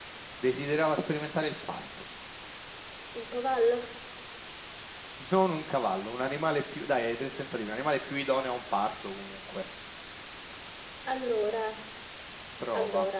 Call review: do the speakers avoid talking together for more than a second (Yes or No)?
Yes